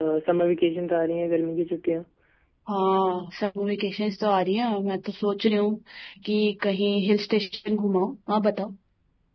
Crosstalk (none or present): none